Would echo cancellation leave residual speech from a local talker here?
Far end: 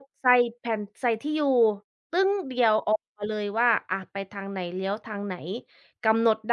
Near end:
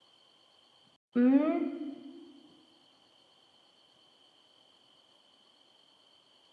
Yes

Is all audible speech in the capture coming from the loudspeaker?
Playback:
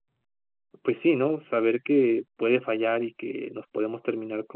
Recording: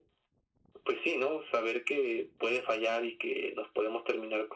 Yes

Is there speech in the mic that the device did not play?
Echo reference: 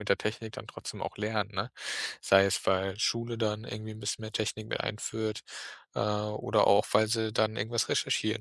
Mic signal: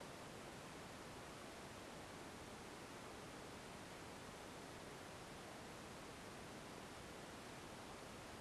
No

